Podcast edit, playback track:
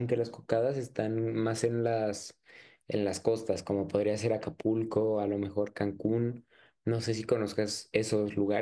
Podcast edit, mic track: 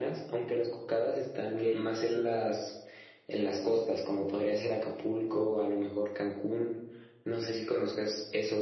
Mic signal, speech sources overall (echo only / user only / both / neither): both